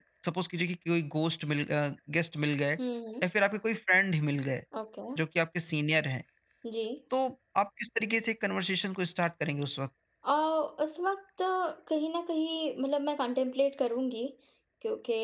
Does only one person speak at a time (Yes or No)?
Yes